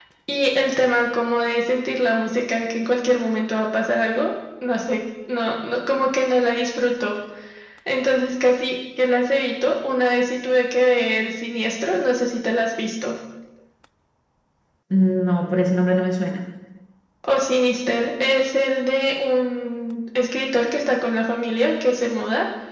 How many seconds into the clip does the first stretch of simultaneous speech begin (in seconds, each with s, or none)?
none